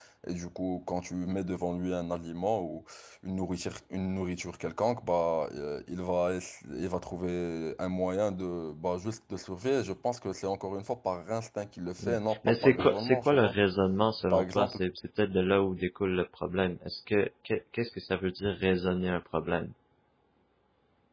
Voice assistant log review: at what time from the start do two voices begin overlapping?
12.0 s

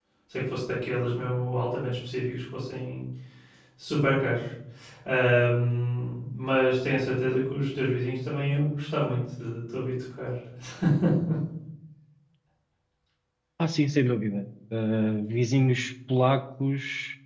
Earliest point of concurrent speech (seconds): none

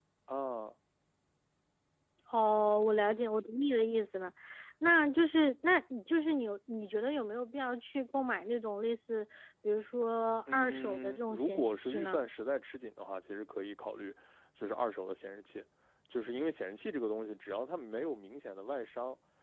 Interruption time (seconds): 10.5 s

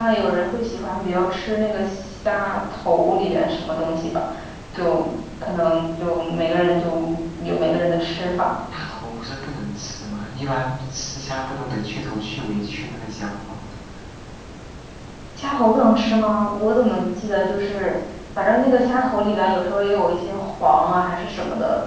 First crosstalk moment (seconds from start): none

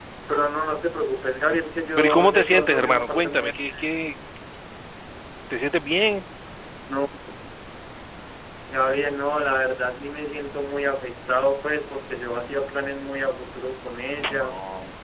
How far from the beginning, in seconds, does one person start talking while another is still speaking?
2.0 s

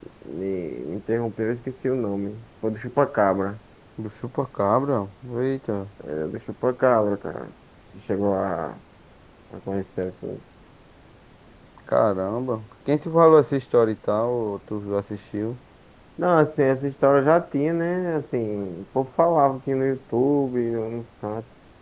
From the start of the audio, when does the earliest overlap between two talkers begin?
none

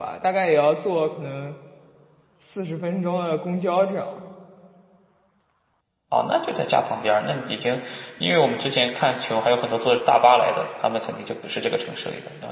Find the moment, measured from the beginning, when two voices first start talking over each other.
none

